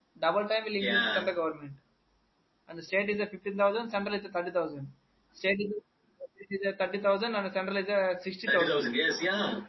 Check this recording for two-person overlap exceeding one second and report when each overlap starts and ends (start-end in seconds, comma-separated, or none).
none